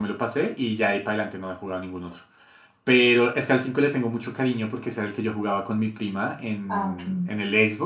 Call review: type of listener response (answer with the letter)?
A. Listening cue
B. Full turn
A